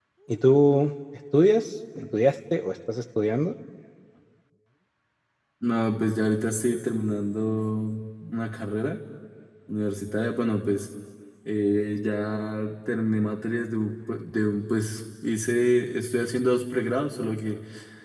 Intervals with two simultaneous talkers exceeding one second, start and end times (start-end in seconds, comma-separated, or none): none